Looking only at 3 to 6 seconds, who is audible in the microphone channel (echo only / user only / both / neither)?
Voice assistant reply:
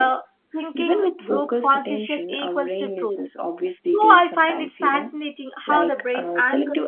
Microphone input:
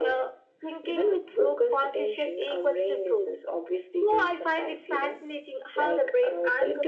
echo only